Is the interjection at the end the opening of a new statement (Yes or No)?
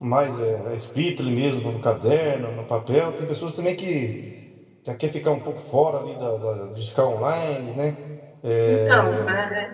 No